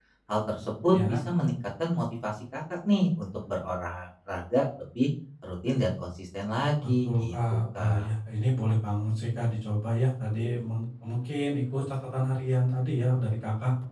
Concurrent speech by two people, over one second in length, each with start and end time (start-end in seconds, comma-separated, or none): 6.8-8.1